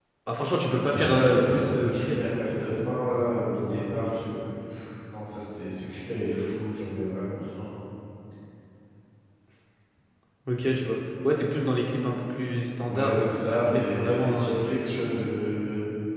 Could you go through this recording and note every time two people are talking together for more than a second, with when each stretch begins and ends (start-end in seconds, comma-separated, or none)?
0.9-2.9, 12.9-15.2